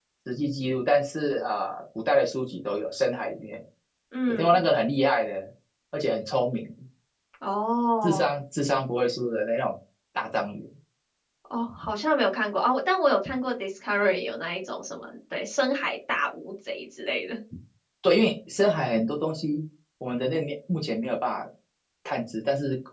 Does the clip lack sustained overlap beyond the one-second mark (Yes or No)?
Yes